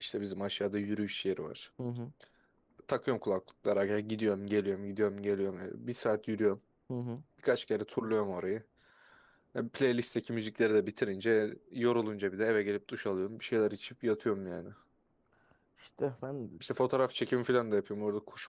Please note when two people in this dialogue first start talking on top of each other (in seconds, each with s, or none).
none